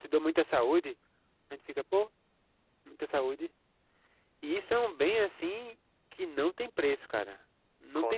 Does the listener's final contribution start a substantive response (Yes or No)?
No